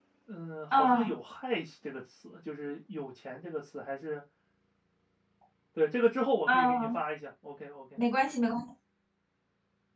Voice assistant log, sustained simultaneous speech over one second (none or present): none